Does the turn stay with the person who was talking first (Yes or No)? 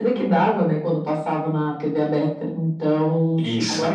Yes